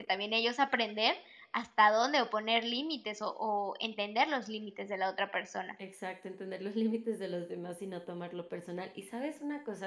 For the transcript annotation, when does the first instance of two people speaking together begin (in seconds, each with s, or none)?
none